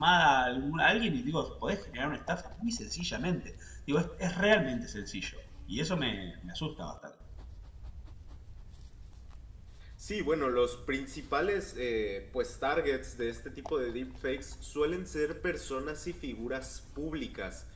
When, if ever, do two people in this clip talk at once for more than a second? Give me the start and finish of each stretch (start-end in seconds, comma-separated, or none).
none